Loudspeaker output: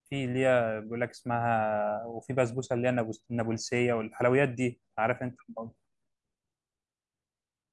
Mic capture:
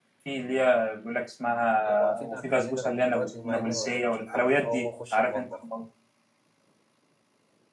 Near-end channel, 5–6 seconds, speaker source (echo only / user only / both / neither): both